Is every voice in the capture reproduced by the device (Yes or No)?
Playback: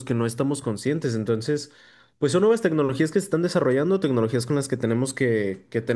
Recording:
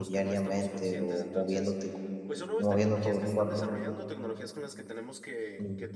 No